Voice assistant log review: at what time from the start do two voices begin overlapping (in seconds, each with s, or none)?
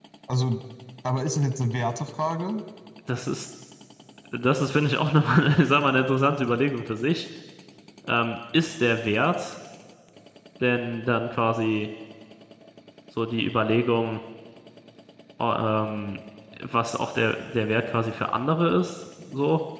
none